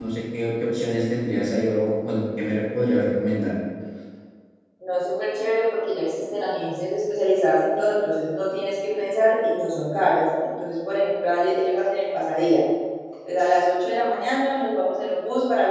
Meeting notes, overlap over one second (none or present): none